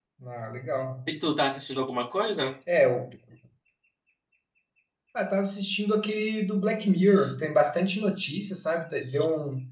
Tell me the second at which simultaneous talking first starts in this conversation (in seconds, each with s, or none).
none